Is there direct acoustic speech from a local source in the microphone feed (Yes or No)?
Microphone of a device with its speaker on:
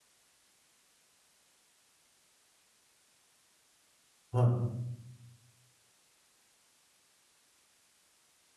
Yes